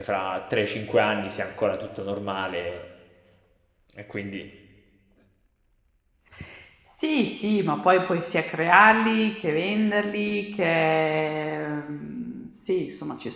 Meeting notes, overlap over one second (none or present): none